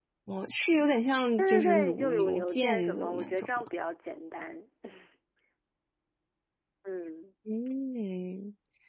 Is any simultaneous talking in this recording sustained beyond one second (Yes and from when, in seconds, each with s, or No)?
Yes, from 1.4 s